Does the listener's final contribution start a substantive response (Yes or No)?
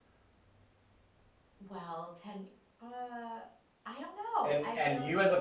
Yes